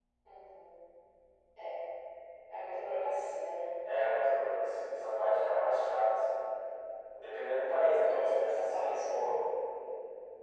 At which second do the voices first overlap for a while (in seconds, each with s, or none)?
8.0 s